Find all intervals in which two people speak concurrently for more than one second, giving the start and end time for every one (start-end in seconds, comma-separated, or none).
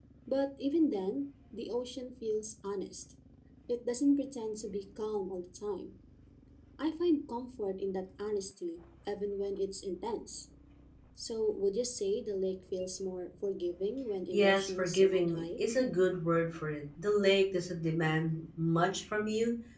14.3-15.6